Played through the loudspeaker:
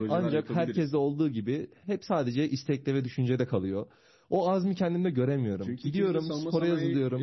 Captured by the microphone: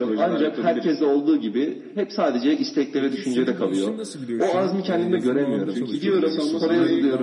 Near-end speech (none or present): present